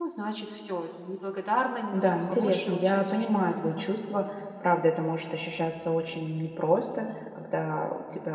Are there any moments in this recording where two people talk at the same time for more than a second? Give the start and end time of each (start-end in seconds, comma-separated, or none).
1.9-3.8